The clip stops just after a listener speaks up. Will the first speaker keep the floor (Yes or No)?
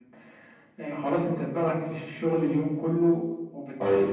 Yes